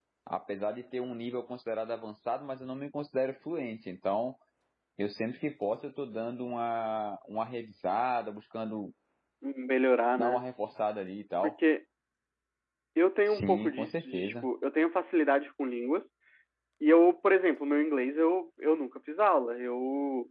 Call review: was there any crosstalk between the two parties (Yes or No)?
Yes